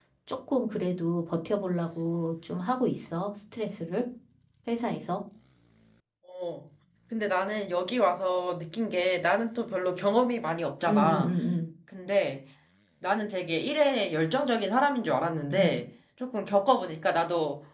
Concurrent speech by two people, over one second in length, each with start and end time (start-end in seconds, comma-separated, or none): none